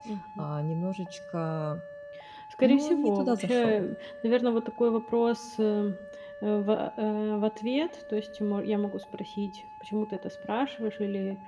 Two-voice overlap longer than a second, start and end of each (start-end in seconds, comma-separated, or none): 2.6-3.8